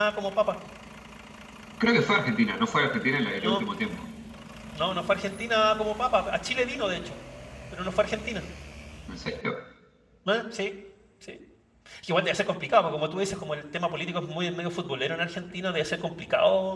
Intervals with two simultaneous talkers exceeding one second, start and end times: none

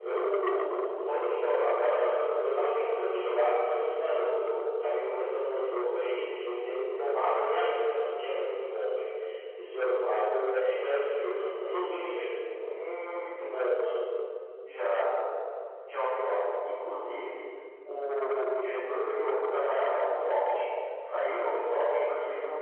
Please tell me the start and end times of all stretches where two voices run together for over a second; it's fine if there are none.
none

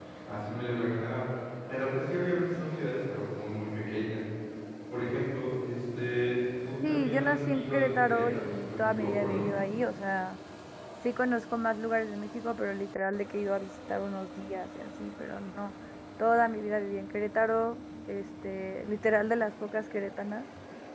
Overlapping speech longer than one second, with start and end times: 6.8-9.5

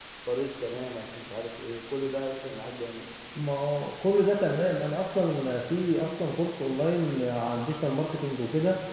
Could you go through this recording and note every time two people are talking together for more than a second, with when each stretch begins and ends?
none

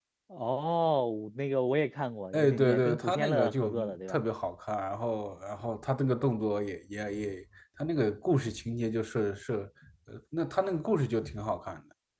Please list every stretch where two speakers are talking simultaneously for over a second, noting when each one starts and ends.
2.3-4.2

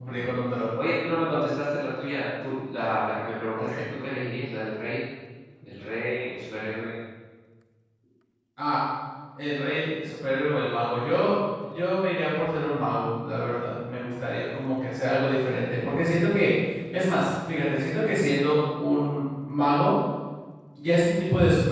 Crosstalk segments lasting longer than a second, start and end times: none

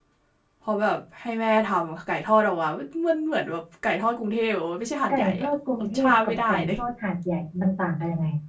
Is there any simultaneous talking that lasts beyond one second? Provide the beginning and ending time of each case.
5.1-6.8

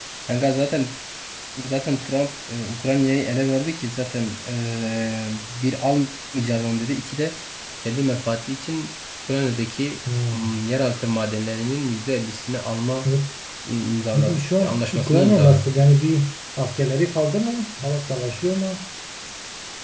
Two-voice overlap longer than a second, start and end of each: 14.1-15.7

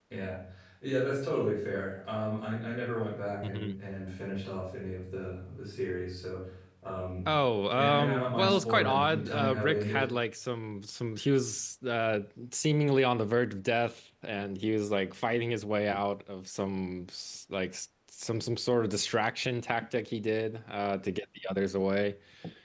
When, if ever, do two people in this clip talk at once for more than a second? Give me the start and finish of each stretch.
7.7-10.1

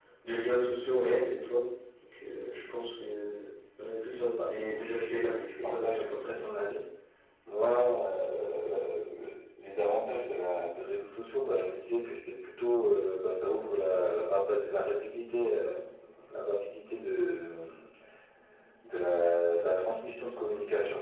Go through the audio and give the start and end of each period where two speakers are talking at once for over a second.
4.3-6.4

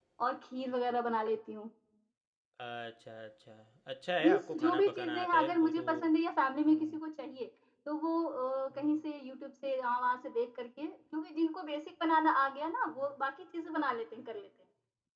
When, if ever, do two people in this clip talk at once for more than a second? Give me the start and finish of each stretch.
4.2-5.8

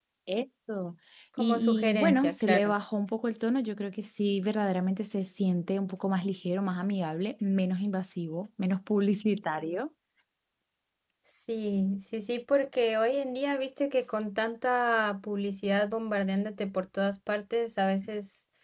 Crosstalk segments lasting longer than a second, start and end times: 1.4-2.7

